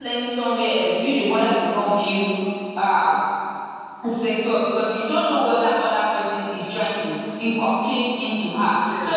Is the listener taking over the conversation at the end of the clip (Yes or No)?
No